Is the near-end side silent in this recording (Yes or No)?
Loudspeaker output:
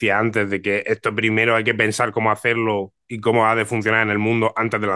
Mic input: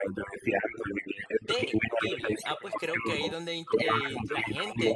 No